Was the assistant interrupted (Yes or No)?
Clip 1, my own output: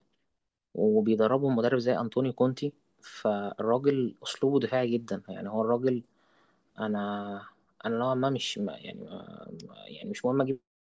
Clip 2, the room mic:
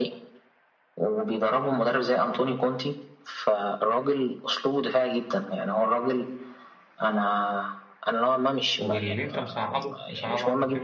Yes